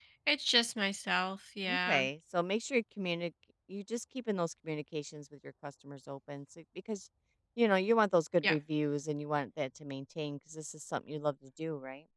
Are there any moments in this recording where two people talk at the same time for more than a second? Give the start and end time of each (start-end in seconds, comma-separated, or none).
none